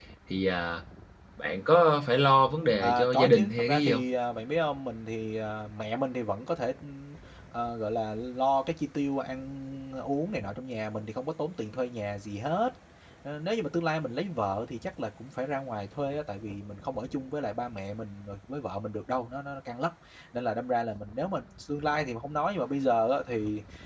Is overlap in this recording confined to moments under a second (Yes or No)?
No